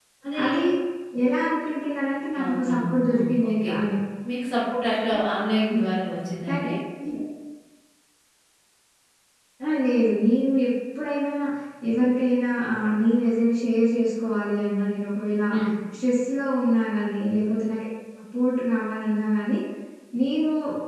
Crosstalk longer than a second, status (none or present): present